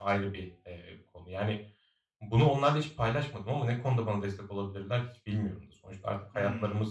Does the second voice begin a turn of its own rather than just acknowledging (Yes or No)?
No